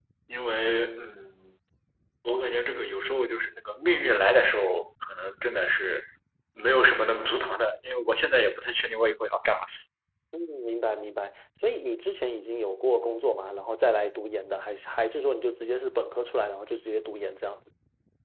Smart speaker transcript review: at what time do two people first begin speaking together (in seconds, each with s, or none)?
none